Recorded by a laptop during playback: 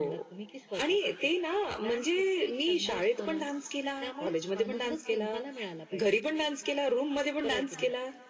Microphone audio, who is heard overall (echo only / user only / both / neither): echo only